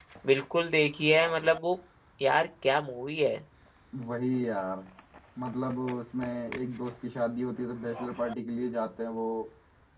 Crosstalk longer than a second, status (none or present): none